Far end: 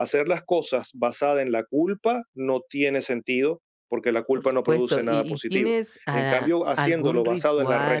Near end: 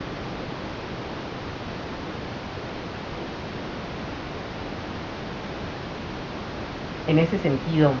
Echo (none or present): none